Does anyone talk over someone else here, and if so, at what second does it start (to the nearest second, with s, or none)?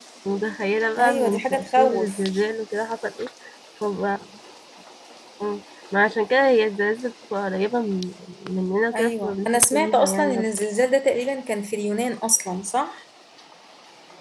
1 s